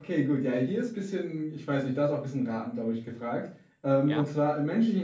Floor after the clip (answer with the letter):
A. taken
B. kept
B